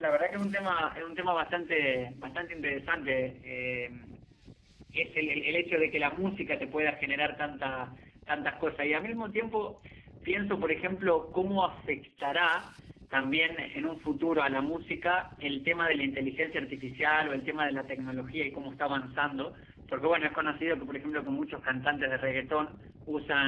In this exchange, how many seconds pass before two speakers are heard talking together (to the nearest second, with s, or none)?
none